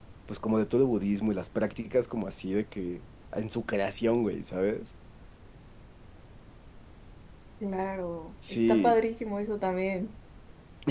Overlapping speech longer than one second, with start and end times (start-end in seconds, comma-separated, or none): none